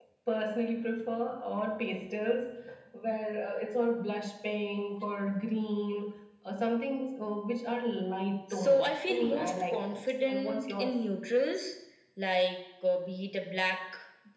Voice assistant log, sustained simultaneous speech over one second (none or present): present